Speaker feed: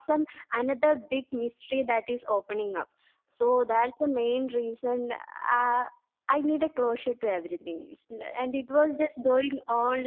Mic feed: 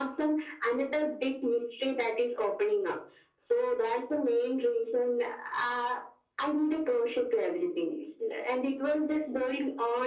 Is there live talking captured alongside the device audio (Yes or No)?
No